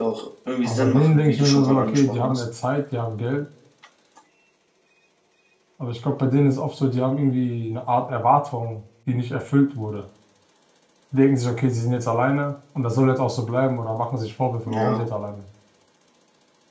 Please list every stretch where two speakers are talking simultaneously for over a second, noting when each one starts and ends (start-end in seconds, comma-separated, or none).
0.6-2.4